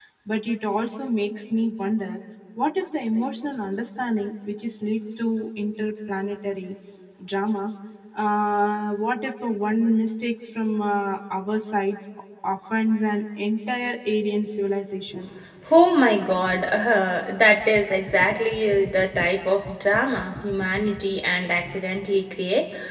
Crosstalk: none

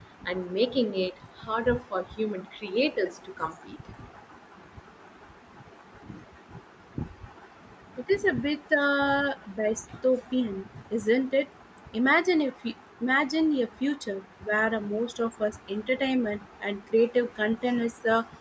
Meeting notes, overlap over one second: none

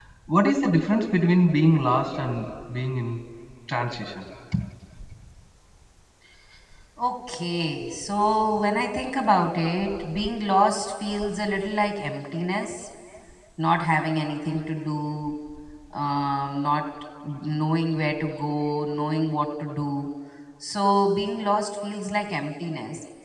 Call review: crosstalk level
none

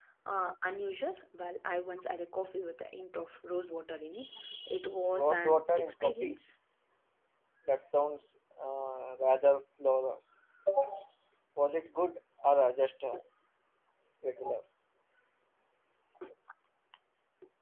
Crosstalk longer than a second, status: present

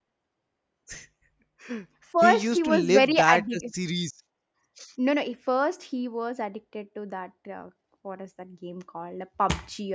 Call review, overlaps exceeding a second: present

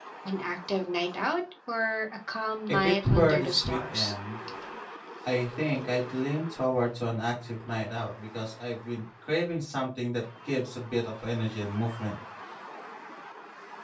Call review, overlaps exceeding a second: present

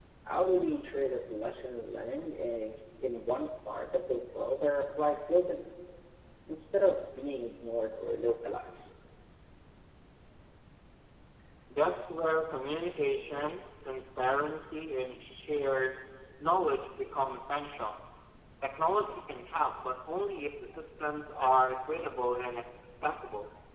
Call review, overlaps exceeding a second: none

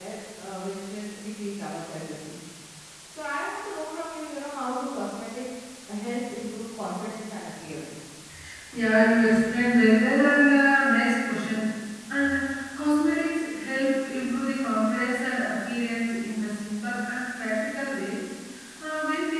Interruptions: none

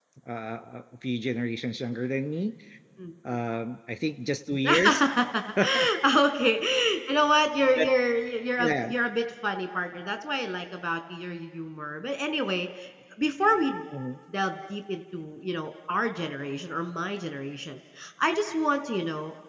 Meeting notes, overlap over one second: none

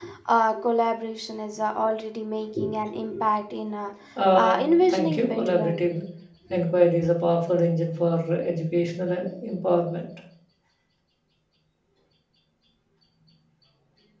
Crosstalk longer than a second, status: present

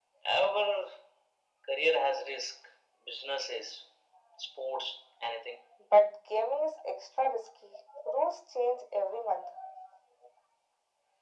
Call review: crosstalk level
none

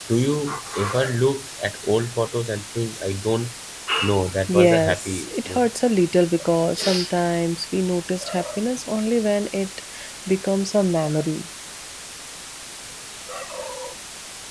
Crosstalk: present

